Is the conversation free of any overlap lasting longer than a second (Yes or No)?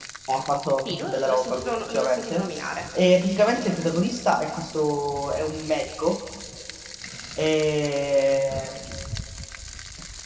No